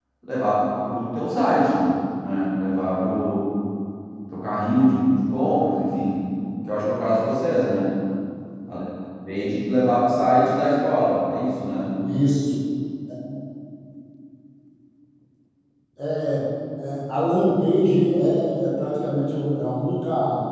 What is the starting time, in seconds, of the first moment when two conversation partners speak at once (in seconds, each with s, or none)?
none